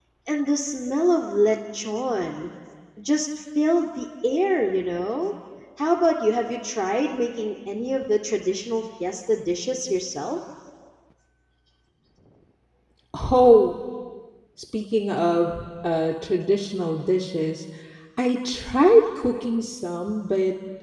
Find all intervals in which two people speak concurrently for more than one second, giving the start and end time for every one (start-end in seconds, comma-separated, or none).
none